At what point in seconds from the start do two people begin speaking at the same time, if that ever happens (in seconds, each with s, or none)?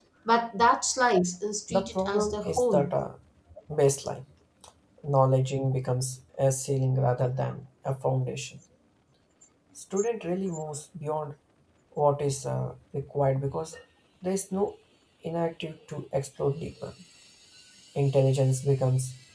1.7 s